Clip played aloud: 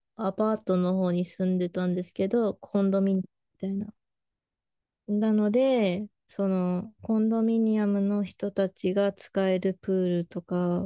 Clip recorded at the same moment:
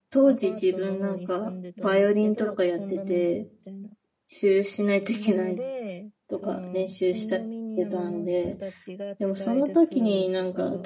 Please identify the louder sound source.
user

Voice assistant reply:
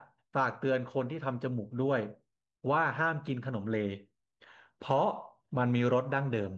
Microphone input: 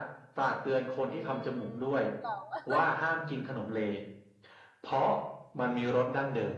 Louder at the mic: echo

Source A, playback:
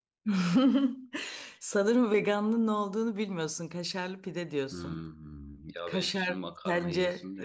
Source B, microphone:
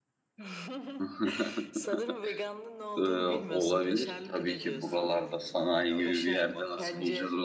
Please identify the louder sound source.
user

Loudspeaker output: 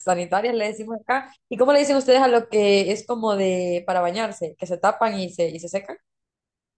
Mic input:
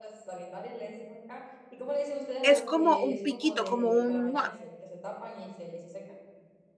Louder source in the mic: user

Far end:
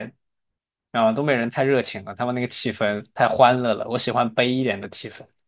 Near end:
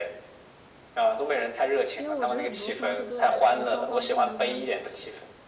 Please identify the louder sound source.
echo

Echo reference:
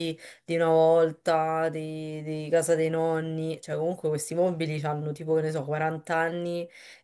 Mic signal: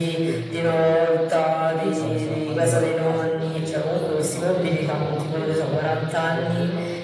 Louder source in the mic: echo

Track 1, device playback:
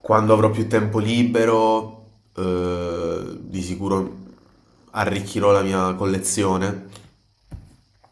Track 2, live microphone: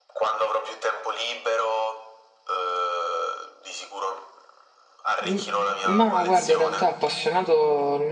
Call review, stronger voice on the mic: user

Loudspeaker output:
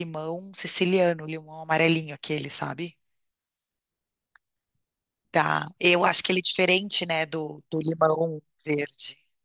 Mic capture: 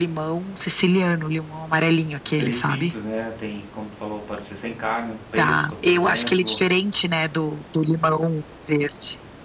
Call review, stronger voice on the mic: echo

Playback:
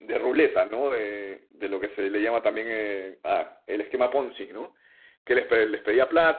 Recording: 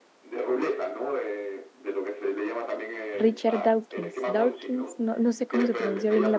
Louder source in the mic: user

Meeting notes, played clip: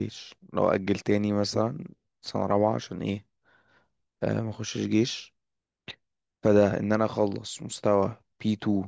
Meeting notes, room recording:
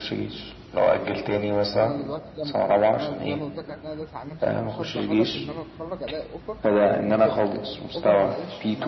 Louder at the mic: echo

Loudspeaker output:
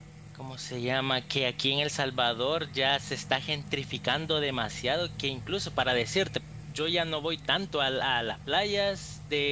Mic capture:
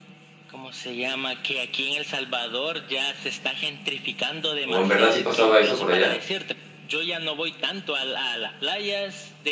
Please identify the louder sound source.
user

